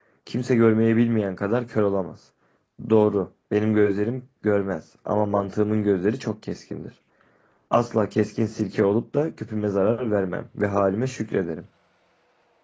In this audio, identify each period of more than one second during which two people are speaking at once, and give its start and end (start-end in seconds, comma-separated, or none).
none